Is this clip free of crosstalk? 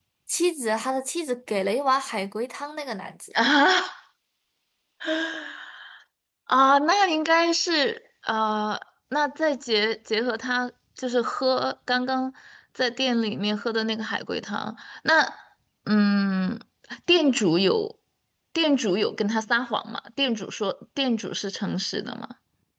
Yes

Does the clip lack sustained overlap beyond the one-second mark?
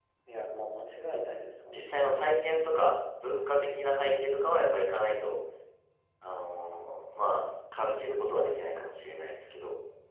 Yes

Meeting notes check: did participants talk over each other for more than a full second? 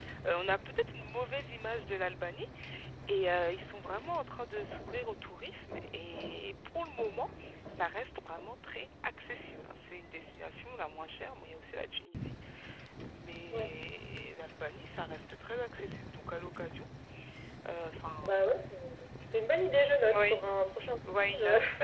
No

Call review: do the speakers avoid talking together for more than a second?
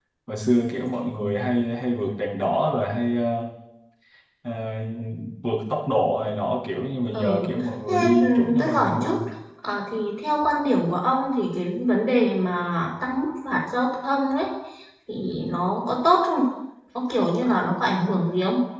No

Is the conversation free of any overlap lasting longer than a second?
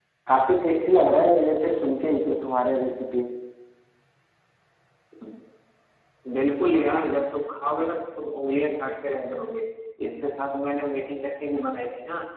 Yes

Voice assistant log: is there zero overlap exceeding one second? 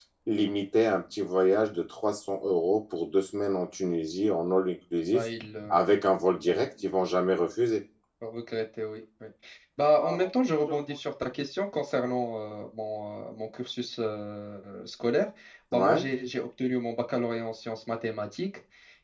Yes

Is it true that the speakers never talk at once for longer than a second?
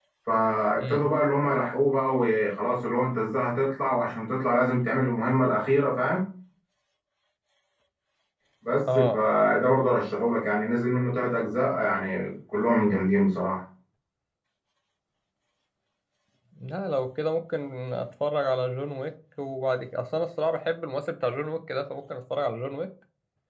Yes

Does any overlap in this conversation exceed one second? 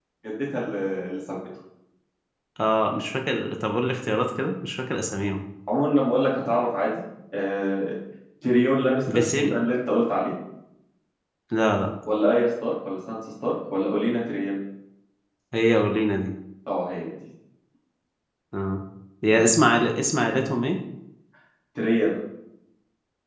No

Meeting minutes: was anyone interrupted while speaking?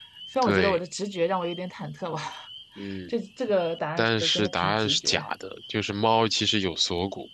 Yes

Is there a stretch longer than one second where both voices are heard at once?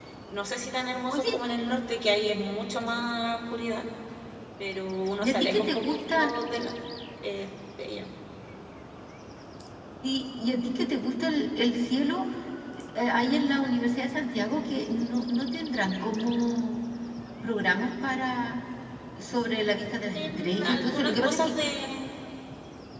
Yes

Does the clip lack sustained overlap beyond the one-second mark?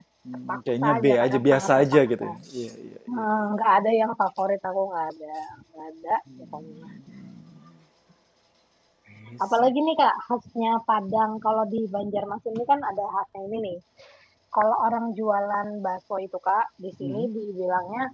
No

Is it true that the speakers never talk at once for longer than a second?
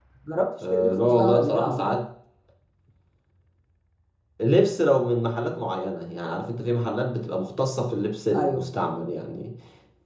No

